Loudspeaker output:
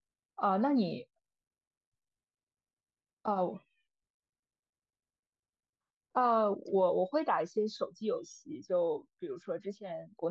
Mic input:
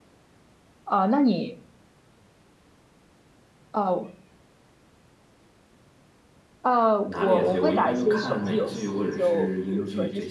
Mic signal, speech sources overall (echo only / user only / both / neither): both